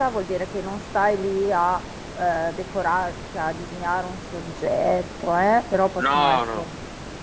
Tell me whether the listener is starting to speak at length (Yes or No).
No